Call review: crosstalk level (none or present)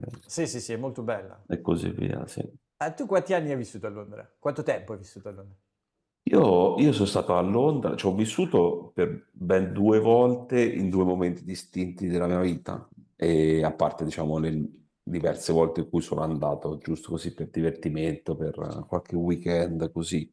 none